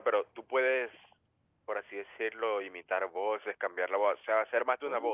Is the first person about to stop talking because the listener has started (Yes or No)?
Yes